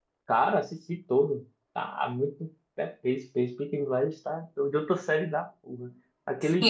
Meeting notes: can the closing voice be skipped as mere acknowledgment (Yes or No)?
No